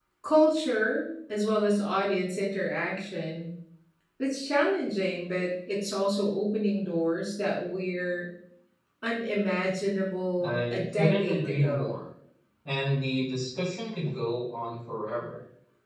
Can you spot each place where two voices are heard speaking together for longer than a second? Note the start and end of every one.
10.4-12.0

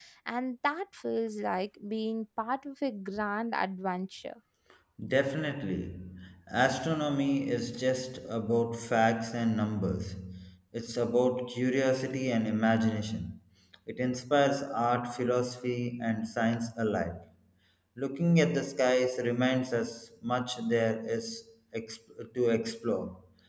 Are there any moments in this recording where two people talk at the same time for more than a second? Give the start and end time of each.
none

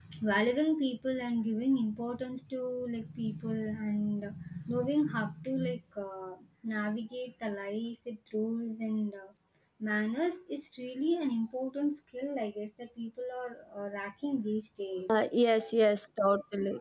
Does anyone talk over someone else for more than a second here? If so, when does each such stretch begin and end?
none

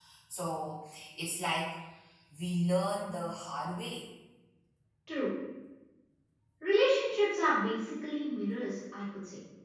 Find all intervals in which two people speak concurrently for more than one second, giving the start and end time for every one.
none

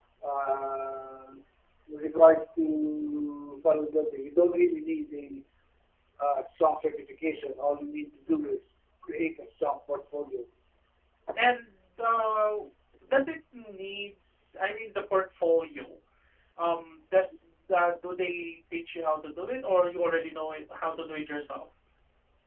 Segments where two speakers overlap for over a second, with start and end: none

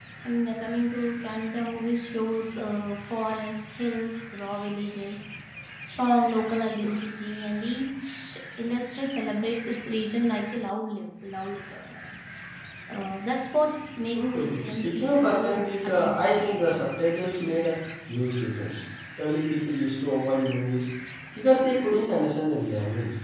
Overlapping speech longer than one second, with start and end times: 14.1-15.4

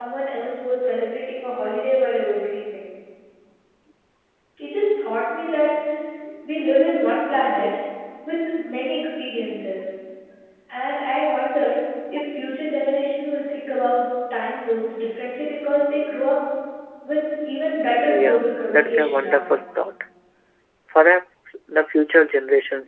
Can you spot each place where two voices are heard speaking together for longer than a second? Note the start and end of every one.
18.1-19.4

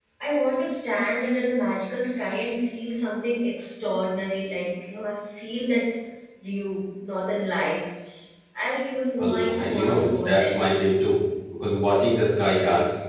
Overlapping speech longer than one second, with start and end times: 9.2-10.6

